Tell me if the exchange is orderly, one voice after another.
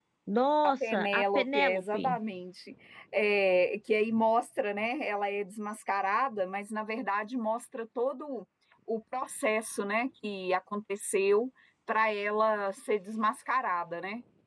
No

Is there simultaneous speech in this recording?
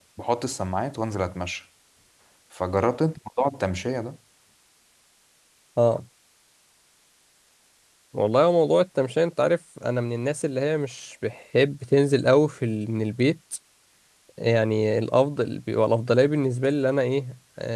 No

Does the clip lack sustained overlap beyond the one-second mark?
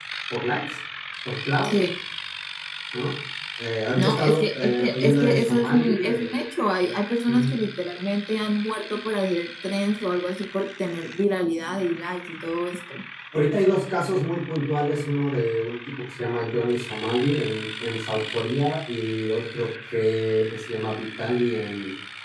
No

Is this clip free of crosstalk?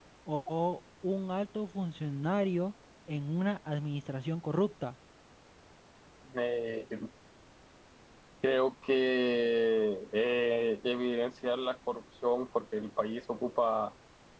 Yes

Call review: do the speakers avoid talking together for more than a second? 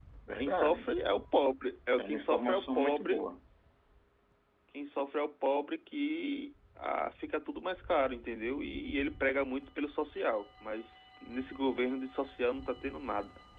No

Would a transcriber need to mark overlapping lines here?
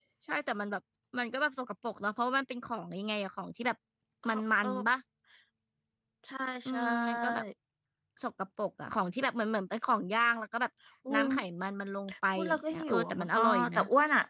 Yes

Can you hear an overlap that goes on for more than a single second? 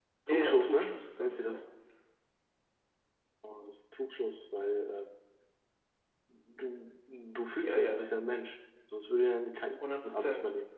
Yes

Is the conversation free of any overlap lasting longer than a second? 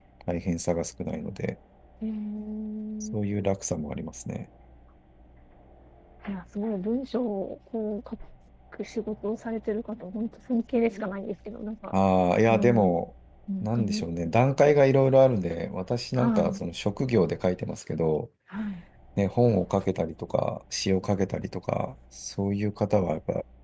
Yes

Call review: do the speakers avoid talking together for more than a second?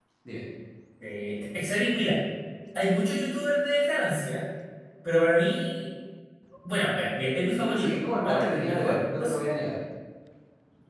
No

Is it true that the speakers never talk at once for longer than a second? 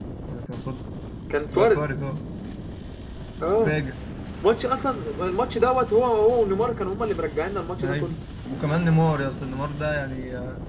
Yes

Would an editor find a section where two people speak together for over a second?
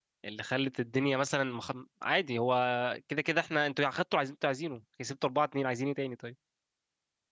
No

